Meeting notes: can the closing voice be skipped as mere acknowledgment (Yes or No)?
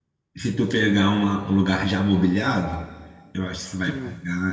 Yes